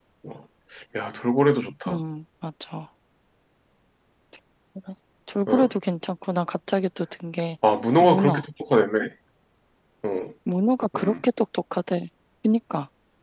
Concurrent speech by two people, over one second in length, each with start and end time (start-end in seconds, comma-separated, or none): none